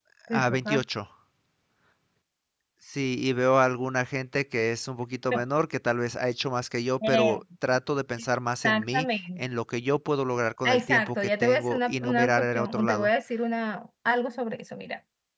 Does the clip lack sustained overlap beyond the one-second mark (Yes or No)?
No